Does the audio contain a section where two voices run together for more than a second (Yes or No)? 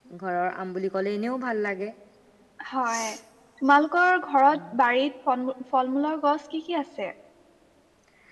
No